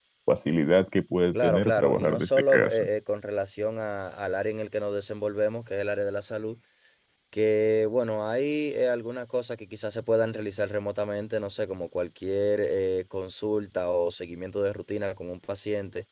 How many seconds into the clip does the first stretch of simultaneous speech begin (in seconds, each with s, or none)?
1.3 s